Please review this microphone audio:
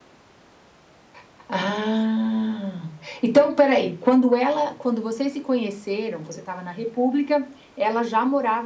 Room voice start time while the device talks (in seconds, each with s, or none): none